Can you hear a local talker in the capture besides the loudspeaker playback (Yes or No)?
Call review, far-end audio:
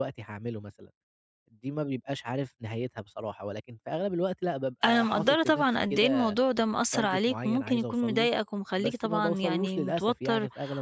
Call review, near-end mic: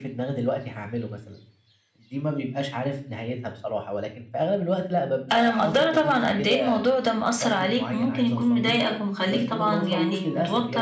No